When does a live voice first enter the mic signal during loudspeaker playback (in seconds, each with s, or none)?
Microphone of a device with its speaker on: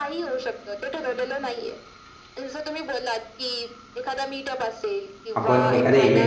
5.3 s